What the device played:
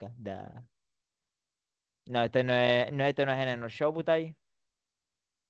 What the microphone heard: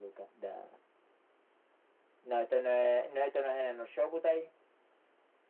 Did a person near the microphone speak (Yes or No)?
No